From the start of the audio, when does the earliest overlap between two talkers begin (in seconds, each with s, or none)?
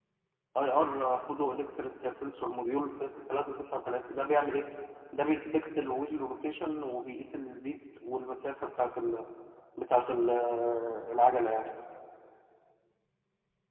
none